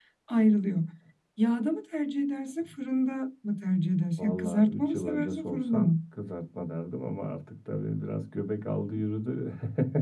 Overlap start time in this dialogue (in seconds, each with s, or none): 4.2 s